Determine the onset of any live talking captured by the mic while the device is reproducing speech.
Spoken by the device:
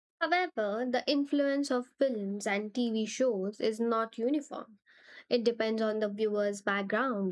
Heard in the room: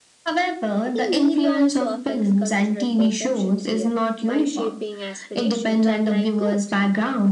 0.9 s

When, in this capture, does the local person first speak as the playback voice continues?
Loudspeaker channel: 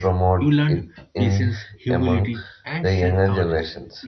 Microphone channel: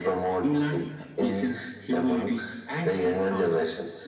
none

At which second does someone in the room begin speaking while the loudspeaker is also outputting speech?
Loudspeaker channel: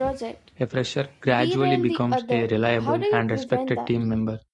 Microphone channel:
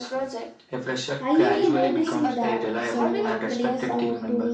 1.2 s

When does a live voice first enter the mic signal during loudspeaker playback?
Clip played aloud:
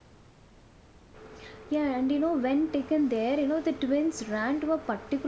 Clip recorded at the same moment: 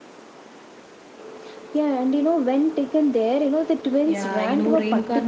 4.0 s

